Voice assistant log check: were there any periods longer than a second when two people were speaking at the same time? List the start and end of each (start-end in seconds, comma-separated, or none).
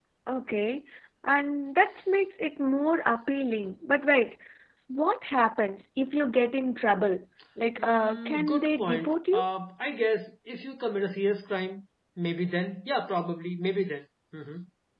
7.8-9.4